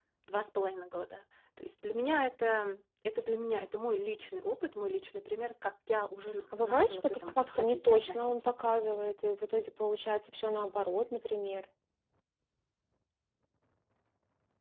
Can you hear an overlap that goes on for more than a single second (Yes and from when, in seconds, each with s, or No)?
Yes, from 6.5 s